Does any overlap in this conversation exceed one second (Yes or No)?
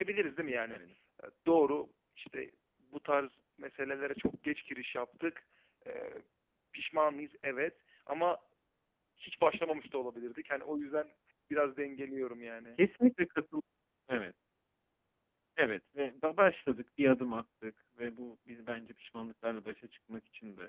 No